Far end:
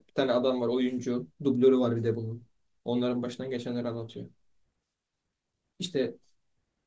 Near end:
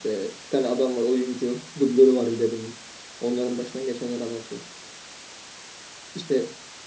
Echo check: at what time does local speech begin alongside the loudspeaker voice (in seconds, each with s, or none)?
none